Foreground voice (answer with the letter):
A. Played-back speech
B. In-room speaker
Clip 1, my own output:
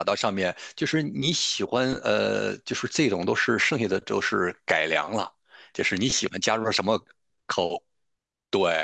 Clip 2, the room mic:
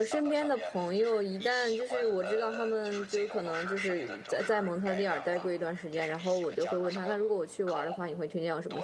B